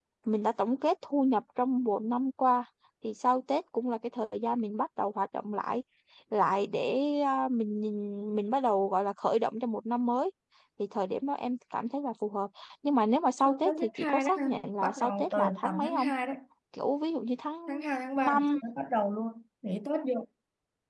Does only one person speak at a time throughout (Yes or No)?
No